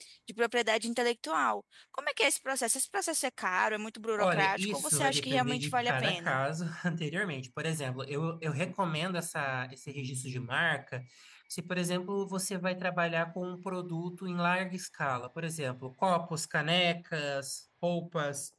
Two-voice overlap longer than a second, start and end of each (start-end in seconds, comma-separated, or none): 4.2-6.4